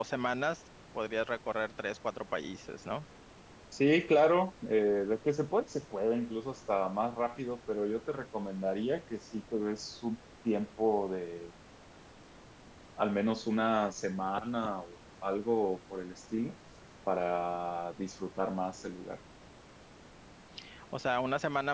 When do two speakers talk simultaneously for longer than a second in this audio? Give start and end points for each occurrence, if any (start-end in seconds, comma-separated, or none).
none